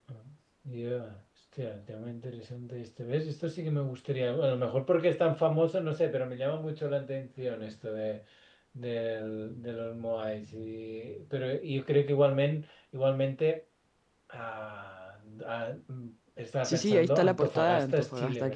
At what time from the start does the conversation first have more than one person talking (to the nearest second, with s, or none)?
17 s